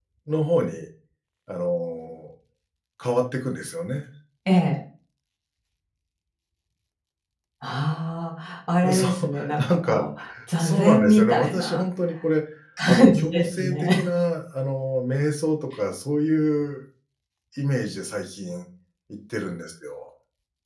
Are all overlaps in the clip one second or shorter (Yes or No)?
No